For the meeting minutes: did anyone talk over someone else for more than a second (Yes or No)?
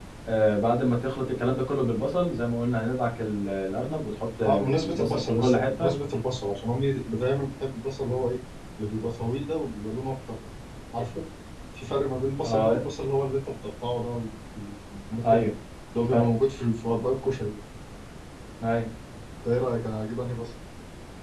Yes